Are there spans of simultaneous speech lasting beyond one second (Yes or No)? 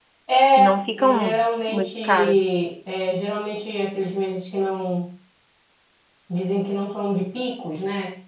Yes